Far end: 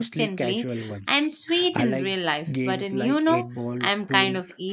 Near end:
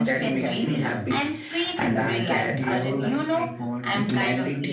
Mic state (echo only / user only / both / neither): both